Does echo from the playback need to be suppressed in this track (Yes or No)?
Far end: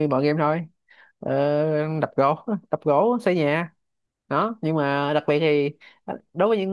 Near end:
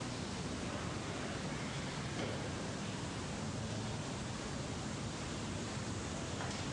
No